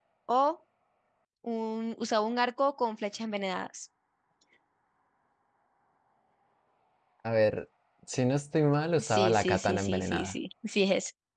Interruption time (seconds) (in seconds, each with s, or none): 9.0 s